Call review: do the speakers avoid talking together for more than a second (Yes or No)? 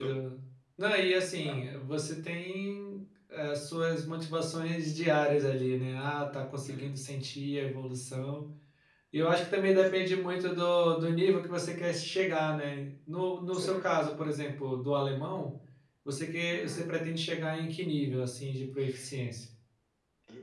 Yes